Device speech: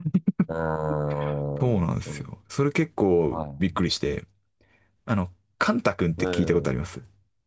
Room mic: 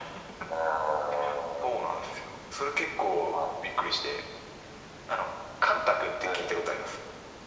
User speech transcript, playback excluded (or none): none